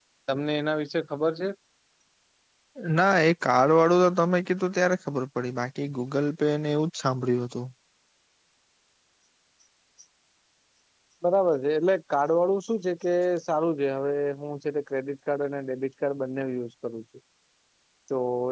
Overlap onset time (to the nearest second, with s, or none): none